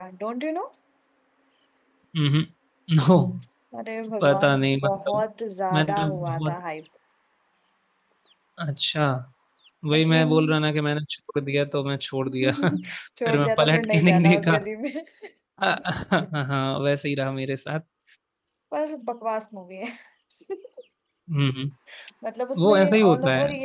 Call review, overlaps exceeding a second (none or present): present